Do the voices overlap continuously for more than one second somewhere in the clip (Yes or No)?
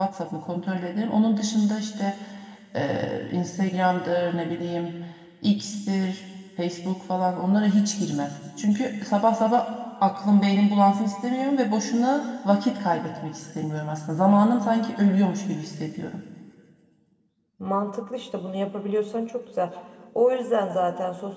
No